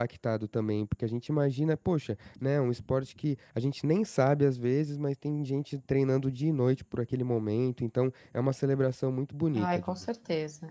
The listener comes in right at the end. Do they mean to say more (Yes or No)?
Yes